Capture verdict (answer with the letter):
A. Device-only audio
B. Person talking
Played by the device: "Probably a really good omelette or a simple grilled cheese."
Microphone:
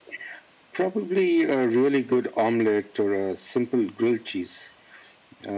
A